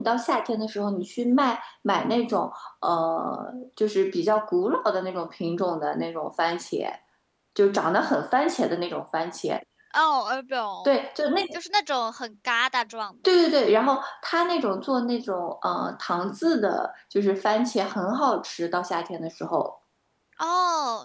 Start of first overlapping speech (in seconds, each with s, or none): none